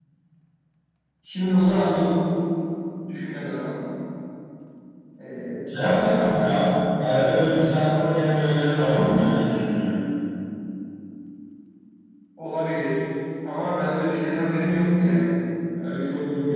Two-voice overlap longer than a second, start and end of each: none

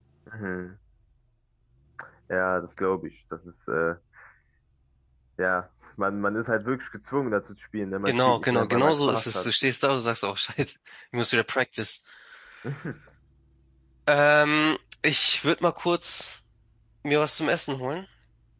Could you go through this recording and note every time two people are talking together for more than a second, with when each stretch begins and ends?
8.0-9.5

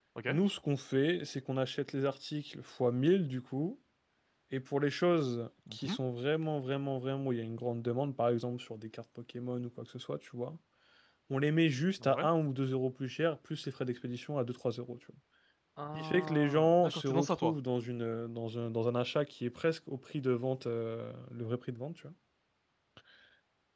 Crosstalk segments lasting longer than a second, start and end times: 15.9-17.5

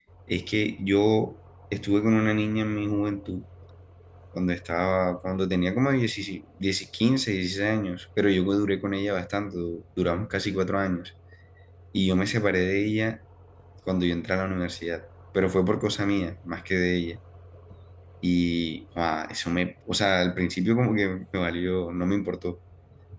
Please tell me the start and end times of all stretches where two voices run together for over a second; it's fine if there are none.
none

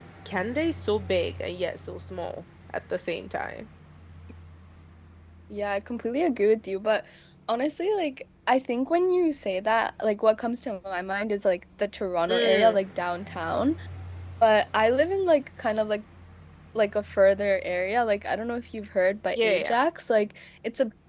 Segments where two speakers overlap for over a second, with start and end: none

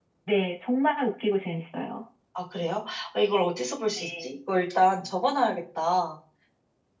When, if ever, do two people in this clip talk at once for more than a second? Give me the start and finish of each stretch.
none

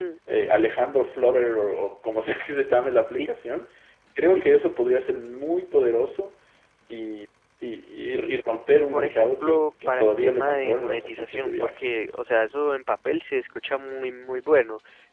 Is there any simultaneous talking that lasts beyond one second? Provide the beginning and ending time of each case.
8.7-11.7

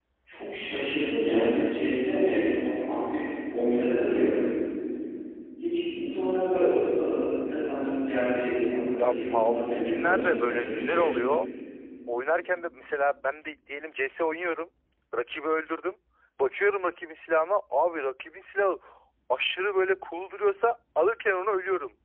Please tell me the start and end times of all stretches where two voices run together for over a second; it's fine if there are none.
9.0-11.1

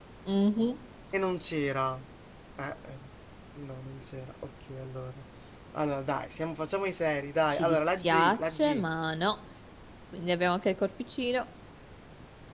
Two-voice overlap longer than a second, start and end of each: 7.5-8.8

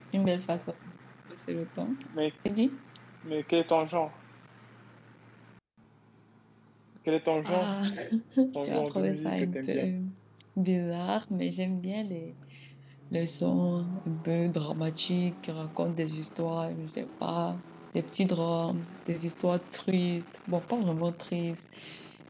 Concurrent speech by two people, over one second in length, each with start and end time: 8.6-9.9

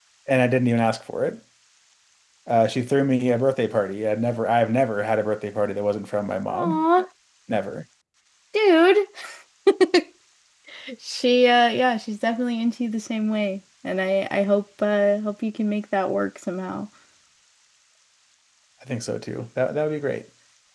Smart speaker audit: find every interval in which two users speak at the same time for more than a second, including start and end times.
none

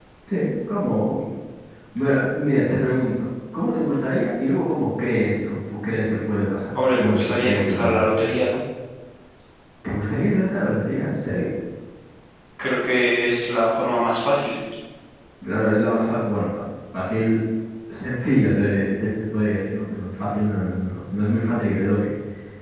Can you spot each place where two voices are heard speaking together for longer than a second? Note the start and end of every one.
7.0-8.2

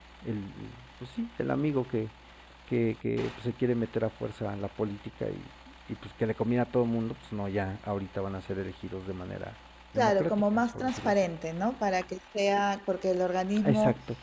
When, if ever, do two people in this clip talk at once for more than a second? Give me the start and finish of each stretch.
10.0-11.2

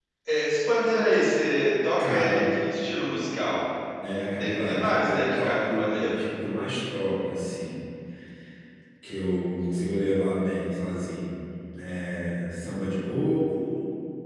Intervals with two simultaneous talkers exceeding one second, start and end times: 4.4-6.2

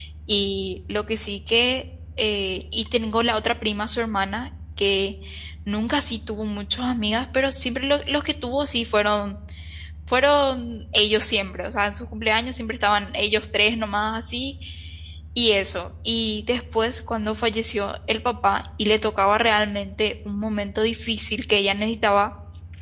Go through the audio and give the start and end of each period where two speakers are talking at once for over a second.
none

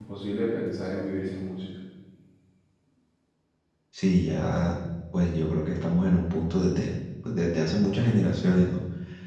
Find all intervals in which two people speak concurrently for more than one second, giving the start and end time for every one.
none

